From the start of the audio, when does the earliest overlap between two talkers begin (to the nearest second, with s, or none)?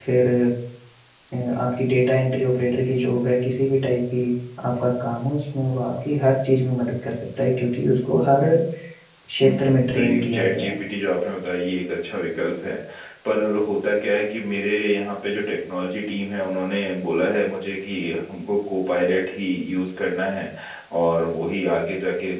9 s